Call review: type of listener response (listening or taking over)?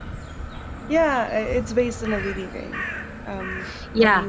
taking over